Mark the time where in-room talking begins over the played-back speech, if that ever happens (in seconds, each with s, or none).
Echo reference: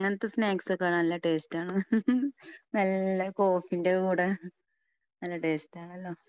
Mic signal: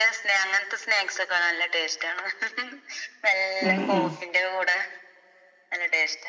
3.7 s